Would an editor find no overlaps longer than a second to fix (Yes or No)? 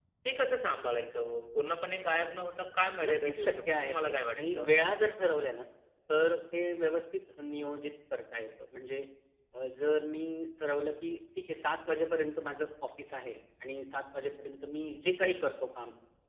No